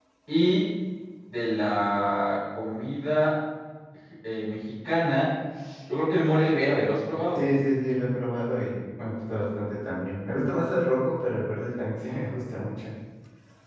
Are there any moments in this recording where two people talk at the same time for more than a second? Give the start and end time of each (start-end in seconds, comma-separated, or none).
none